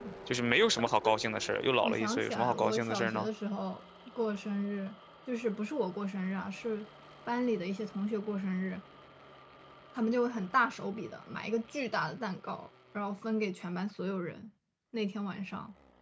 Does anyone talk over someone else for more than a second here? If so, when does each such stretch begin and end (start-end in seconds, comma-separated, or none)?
1.8-3.3